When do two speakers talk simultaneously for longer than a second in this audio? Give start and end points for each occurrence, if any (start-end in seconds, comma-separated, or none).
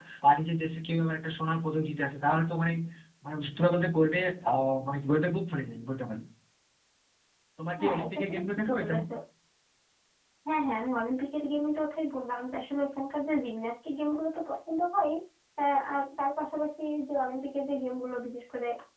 7.8-9.0